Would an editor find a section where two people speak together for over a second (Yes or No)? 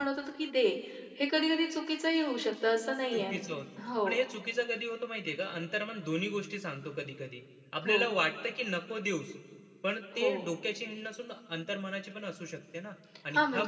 No